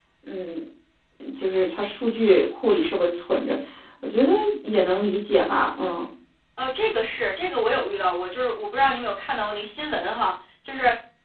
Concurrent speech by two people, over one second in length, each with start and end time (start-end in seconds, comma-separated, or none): none